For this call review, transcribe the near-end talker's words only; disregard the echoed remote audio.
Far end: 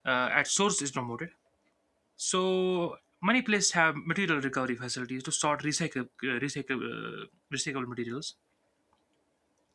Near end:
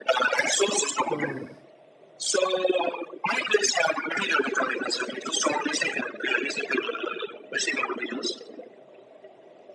um,

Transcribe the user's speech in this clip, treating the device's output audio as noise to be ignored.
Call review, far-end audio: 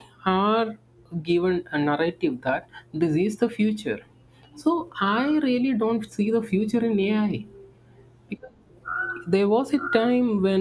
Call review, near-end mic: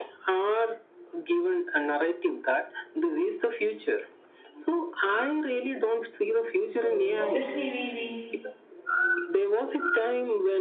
So obviously we we

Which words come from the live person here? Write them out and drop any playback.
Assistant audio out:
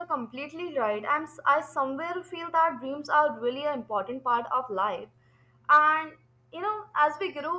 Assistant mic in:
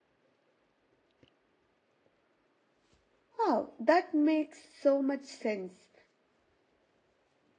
Wow, that makes so much sense.

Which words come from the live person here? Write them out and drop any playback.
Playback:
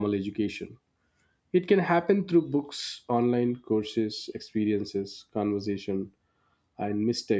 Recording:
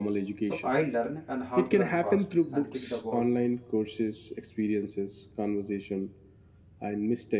So I learn and how to run fast and kick the ball

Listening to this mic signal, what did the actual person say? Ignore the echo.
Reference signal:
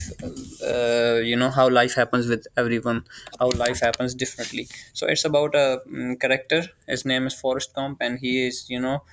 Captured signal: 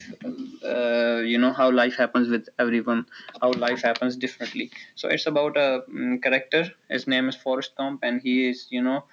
none

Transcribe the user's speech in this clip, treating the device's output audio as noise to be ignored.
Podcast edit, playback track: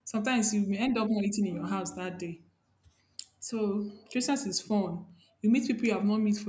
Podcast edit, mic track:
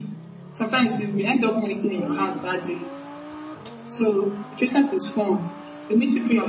none

